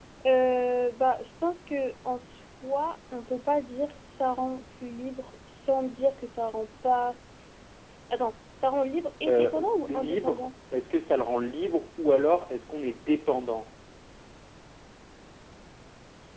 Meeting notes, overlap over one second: present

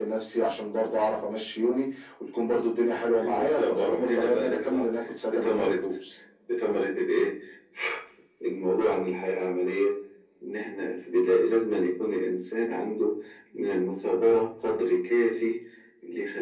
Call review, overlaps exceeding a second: present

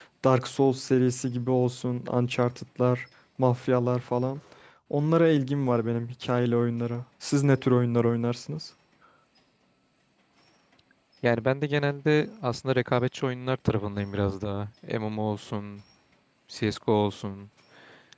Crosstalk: none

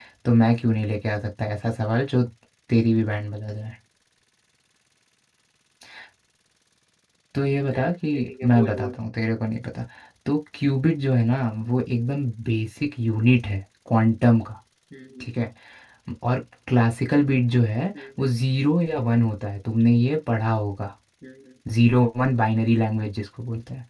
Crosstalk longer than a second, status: present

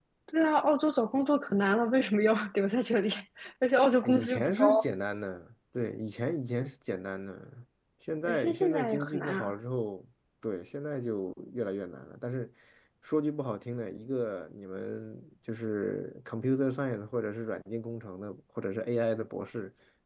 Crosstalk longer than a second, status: present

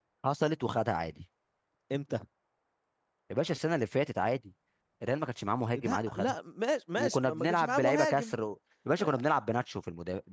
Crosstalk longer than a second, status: present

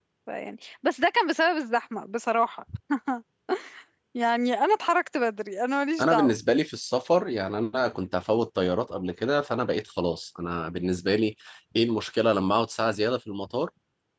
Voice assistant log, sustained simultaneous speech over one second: none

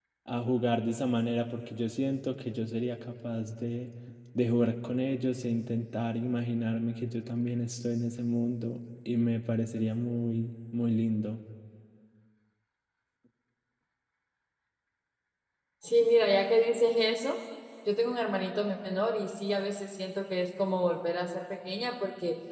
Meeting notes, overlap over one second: none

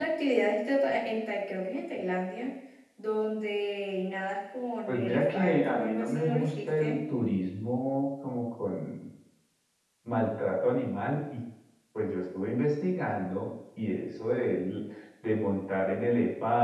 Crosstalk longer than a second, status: present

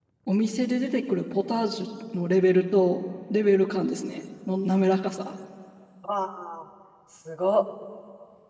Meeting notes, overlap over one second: none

